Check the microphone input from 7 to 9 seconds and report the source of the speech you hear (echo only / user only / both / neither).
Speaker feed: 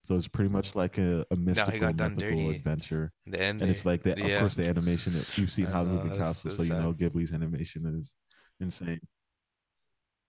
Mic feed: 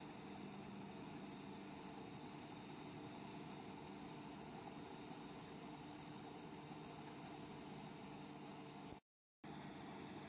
neither